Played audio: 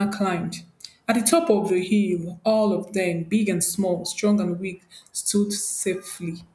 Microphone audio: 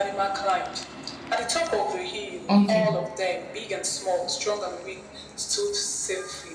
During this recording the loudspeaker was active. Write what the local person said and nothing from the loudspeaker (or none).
Okay.